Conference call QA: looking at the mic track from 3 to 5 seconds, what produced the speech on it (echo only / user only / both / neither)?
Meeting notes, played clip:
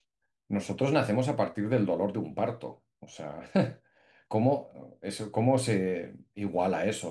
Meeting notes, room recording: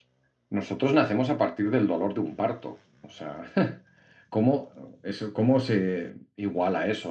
echo only